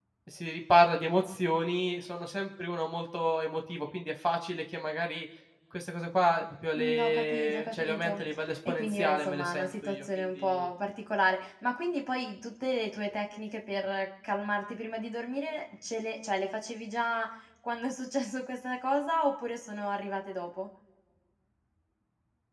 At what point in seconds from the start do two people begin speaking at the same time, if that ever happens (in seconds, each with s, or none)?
6.8 s